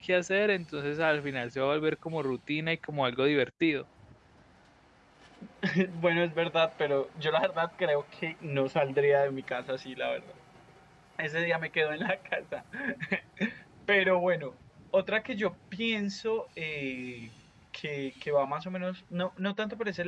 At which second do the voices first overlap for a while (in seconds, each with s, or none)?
none